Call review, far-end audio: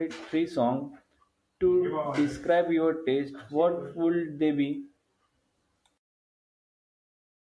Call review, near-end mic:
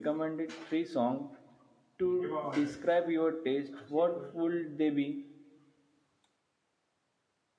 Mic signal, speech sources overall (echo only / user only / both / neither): echo only